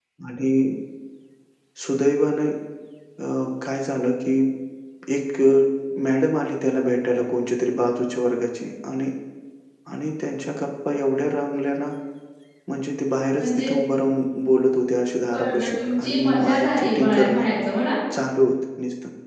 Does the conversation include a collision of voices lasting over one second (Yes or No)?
Yes